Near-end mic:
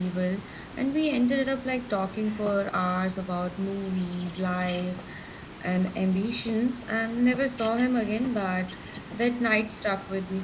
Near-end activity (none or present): none